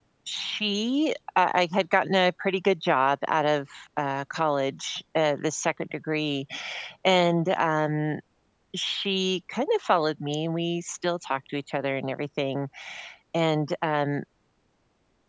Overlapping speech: No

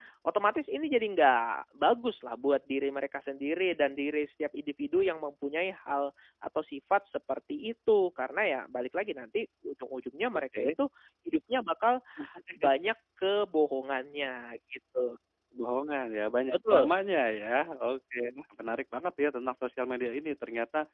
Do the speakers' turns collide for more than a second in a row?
No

